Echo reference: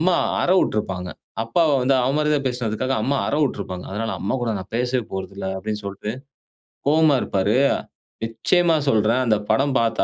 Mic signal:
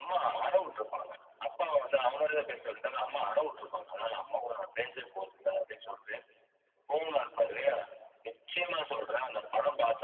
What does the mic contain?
echo only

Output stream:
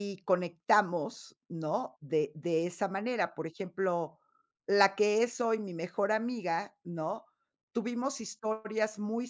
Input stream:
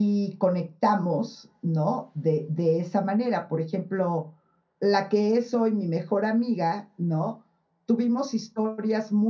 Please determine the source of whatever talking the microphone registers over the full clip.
echo only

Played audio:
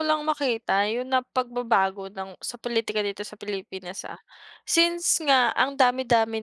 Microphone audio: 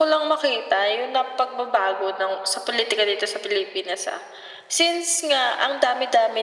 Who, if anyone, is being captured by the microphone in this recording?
echo only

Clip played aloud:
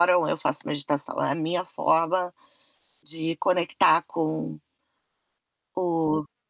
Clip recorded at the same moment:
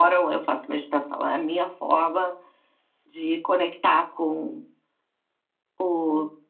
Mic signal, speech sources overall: echo only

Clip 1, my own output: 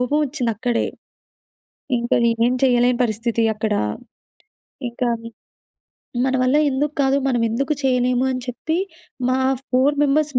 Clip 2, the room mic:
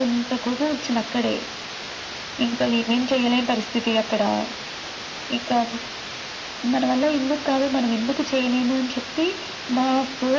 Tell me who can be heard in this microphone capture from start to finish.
echo only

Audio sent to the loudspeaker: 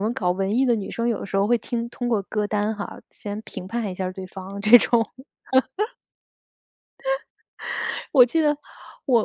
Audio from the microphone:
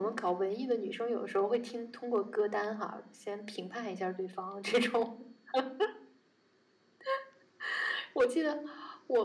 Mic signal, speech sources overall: echo only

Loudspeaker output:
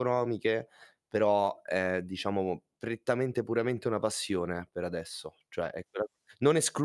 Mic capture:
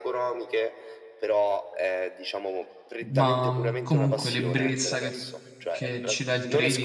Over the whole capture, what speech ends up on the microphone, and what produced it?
both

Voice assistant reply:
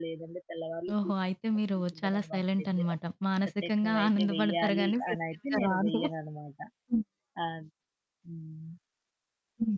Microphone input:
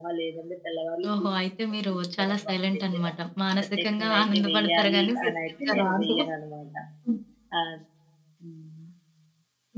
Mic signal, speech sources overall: echo only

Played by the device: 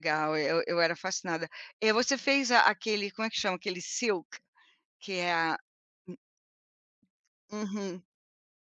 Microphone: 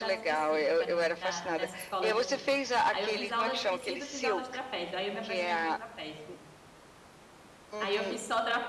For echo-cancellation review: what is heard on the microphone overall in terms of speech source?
both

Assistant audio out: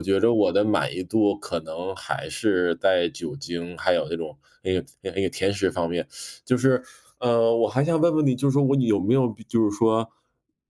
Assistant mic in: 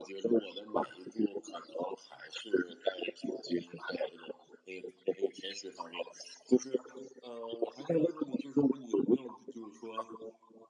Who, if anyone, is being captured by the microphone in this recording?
echo only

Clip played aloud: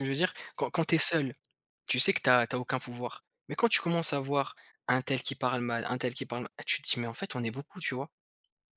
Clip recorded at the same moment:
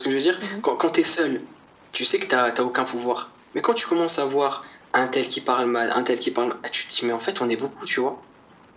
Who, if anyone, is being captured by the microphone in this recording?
both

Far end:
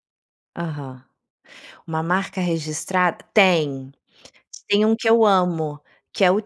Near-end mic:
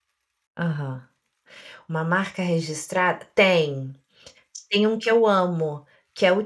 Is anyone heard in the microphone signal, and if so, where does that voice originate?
echo only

